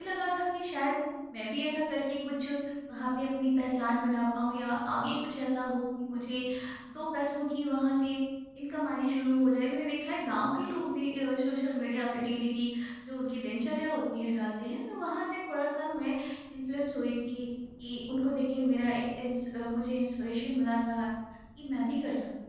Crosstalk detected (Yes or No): No